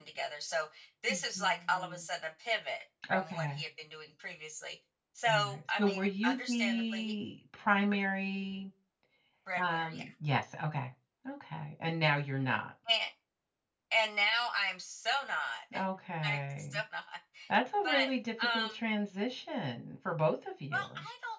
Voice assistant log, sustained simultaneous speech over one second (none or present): present